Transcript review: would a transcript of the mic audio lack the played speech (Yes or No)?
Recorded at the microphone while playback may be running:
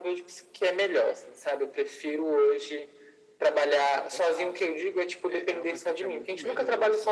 No